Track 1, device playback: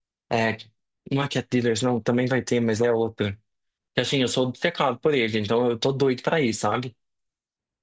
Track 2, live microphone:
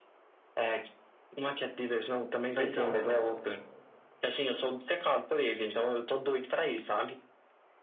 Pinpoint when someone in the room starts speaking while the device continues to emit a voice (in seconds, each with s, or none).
2.6 s